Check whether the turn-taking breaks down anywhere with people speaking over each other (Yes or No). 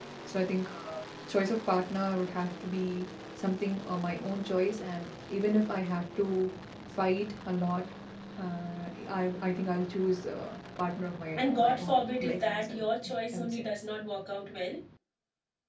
Yes